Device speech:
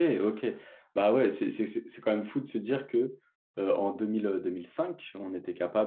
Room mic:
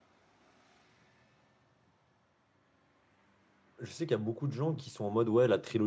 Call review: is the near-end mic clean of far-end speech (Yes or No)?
Yes